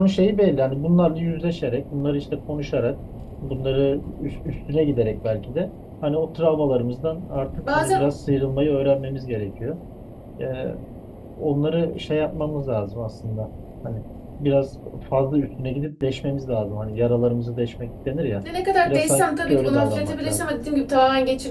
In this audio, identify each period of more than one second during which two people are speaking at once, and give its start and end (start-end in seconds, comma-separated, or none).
18.9-20.5